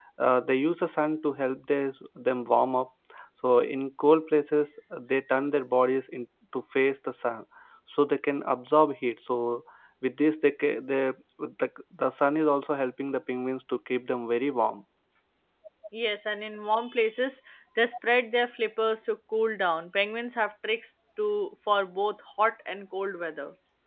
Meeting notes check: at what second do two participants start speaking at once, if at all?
none

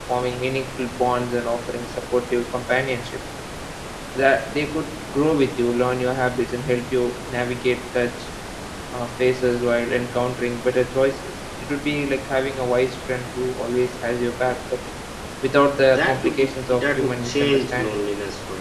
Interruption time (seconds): 15.9 s

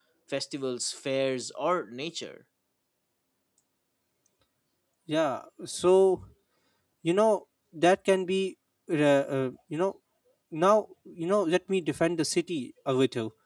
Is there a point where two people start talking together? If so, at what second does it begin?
none

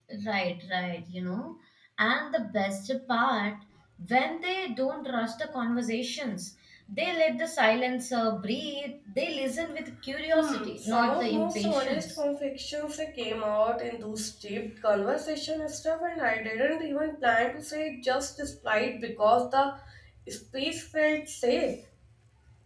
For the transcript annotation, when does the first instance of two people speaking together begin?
10.3 s

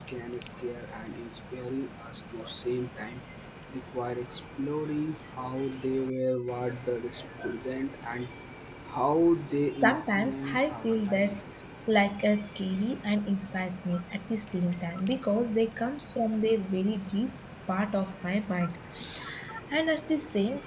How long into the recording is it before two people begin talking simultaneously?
9.8 s

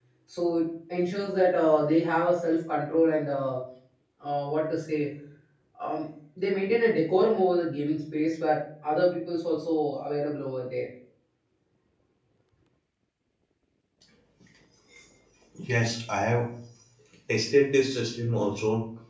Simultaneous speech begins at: none

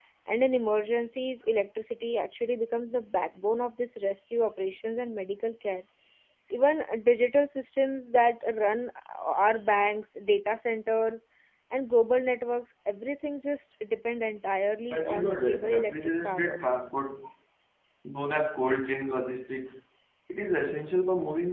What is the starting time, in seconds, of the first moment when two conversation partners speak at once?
14.9 s

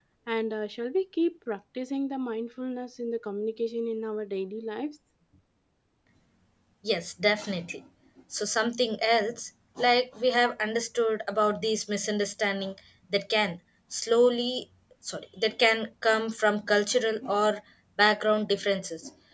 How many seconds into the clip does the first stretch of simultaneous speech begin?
none

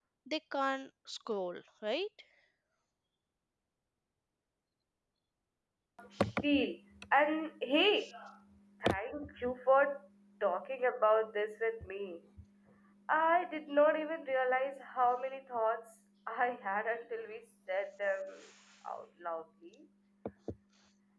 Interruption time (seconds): none

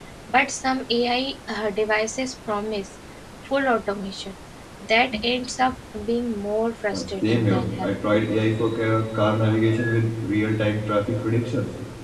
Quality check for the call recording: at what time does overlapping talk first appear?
6.9 s

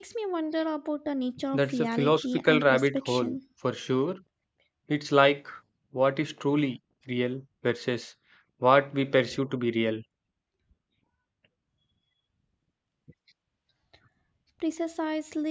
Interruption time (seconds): 1.5 s

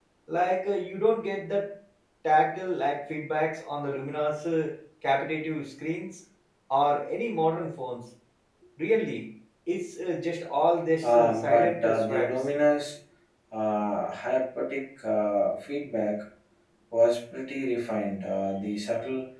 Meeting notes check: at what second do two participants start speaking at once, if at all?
11.0 s

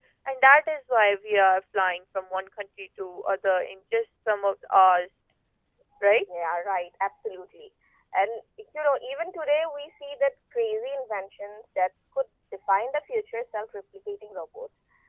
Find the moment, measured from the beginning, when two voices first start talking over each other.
none

